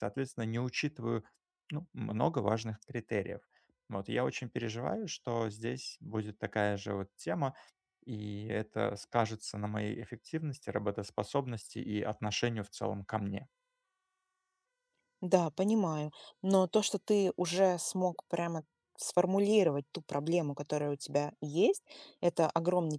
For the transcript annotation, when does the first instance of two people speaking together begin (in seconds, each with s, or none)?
none